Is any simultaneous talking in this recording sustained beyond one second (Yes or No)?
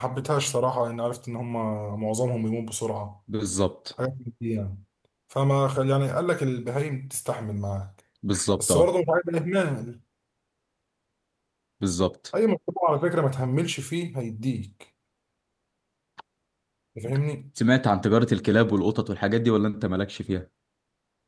No